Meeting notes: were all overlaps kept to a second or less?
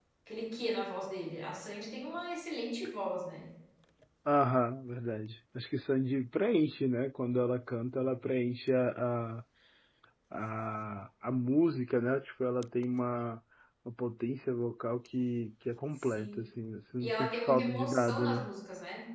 No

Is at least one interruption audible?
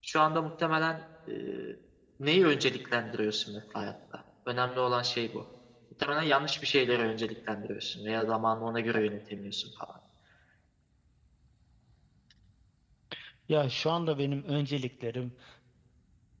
No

